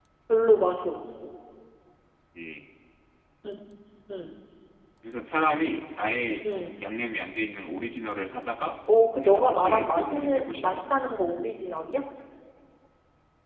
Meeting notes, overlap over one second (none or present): present